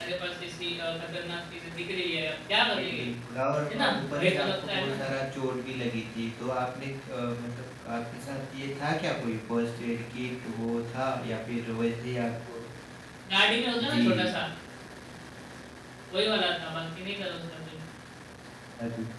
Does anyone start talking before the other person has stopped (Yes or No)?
Yes